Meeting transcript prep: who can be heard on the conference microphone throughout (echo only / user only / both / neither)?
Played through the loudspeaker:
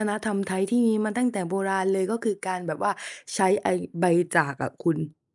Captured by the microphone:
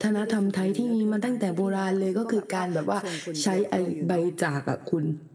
both